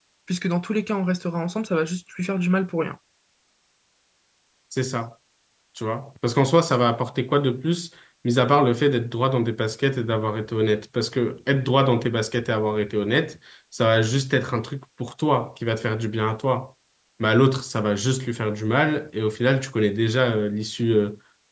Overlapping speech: No

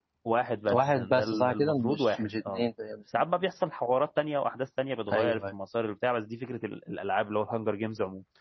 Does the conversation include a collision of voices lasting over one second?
Yes, from 0.7 s

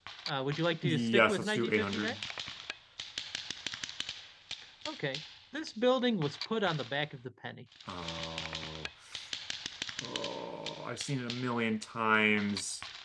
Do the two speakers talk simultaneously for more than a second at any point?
Yes, from 0.8 s

